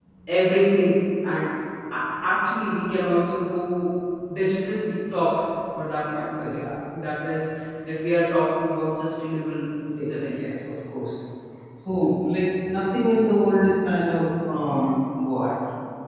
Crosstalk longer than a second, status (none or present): none